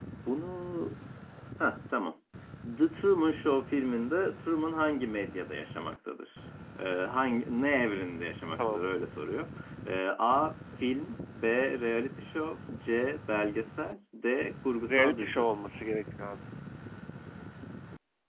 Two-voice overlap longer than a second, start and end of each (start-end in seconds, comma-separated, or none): none